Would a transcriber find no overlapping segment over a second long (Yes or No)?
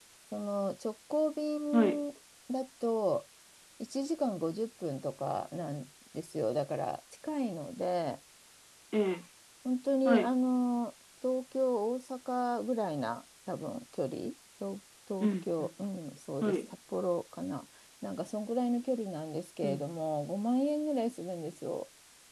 Yes